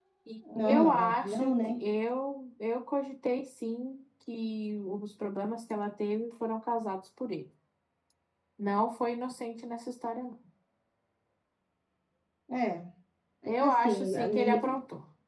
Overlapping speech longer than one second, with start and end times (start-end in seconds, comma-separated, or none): 0.6-1.9, 13.5-14.8